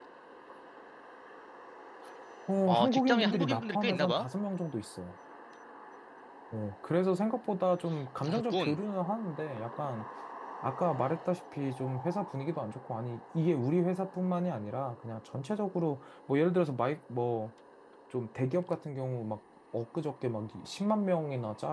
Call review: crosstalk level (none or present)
present